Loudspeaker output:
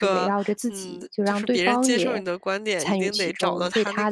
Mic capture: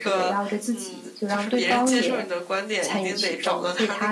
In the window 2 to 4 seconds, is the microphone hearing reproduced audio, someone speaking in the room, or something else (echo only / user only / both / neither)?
echo only